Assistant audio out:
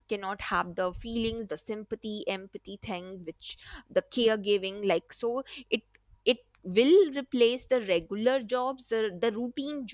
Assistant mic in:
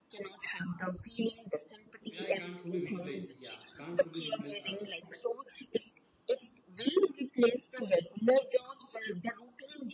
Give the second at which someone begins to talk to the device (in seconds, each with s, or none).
2.1 s